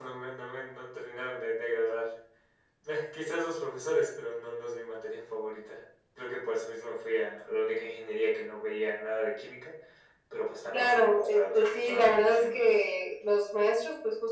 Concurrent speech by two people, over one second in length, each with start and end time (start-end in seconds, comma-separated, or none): 10.7-12.6